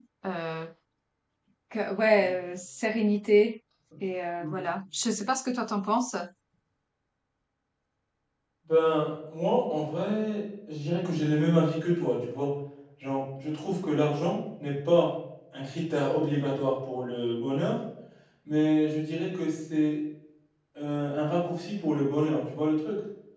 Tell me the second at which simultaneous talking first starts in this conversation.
none

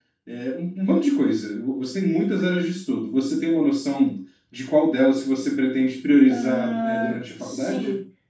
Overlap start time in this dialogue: 6.3 s

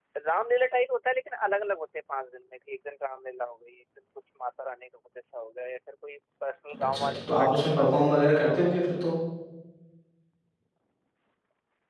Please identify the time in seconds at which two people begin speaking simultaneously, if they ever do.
6.7 s

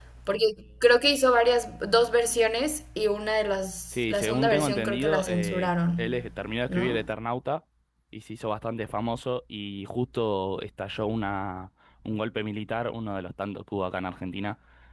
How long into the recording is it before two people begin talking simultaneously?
3.9 s

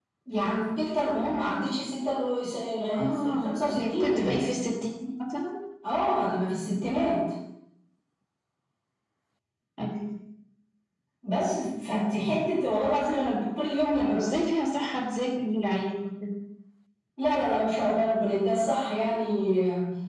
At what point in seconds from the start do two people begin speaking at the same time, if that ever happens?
2.9 s

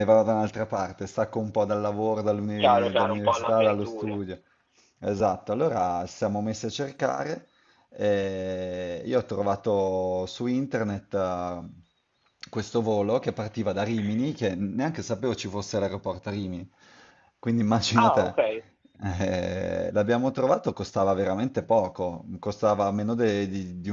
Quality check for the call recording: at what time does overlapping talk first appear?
2.6 s

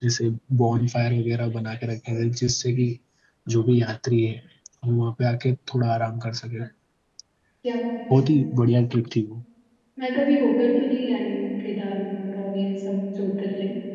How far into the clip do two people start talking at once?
none

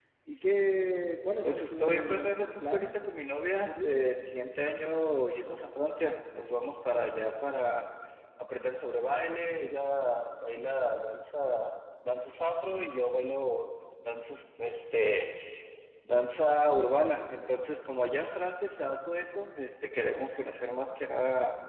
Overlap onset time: 1.4 s

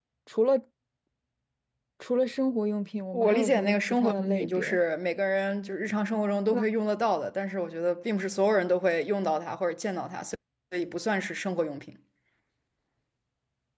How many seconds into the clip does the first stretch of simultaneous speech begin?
3.1 s

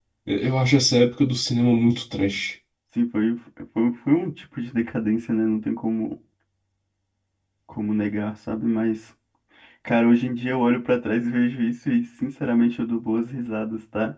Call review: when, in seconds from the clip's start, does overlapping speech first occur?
none

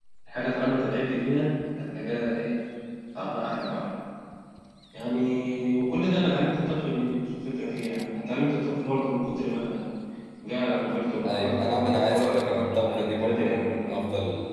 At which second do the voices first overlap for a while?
11.3 s

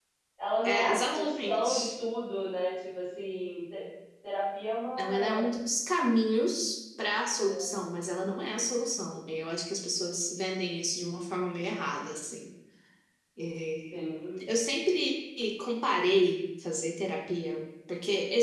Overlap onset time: 0.6 s

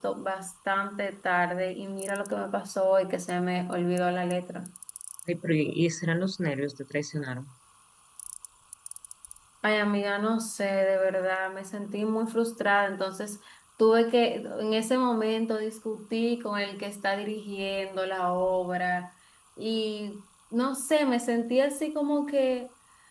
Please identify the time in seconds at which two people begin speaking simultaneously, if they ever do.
none

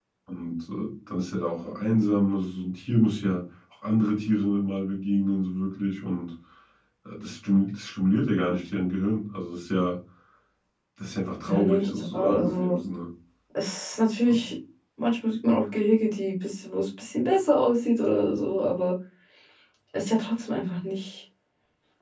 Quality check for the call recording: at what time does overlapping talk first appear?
11.4 s

